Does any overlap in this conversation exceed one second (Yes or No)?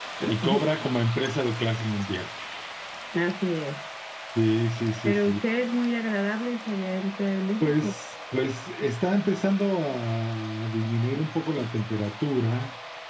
No